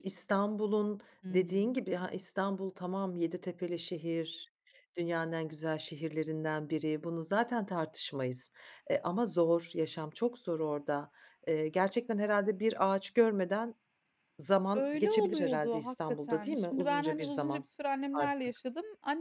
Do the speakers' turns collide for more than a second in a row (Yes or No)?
Yes